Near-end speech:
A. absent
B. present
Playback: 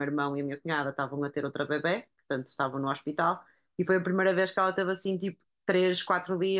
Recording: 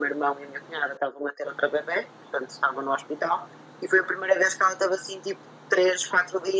A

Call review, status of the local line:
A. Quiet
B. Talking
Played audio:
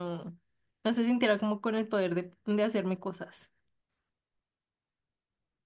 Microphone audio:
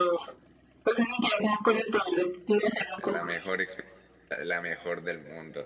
B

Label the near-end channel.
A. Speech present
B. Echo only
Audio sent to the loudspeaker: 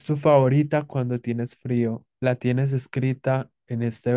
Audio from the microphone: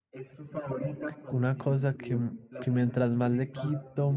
A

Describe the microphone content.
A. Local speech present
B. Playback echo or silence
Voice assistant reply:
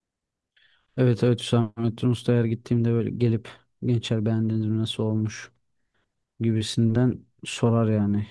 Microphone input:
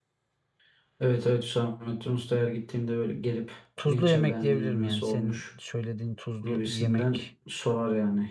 A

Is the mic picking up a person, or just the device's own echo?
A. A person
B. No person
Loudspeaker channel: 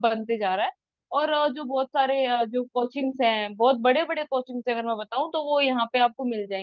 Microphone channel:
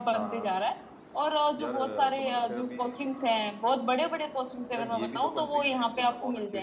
A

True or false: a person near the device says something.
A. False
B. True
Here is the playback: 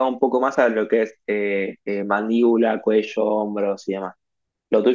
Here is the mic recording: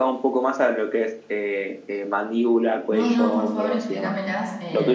B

